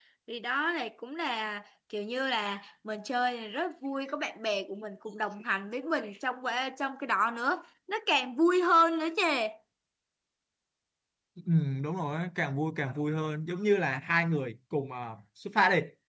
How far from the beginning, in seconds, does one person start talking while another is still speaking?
none

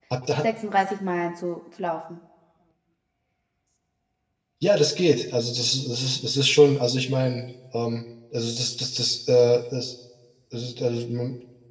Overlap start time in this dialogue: none

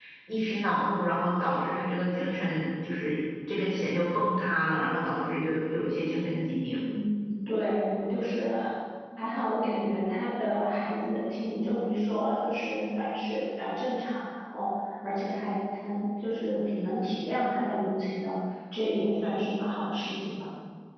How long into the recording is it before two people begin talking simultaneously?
none

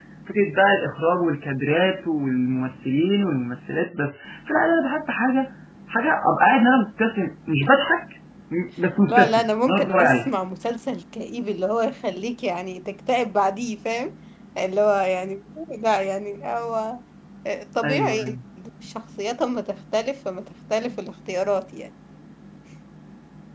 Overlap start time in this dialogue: 9.1 s

